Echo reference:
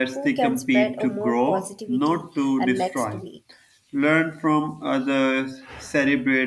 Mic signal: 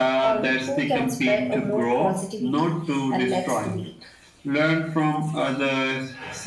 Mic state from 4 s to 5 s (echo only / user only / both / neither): echo only